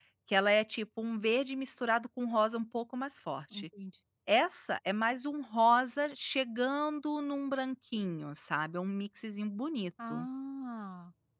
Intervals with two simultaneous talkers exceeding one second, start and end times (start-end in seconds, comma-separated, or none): none